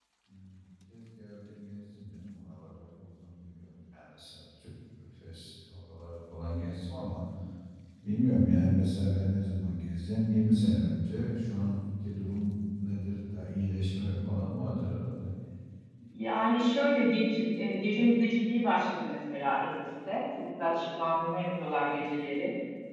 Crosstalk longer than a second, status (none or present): none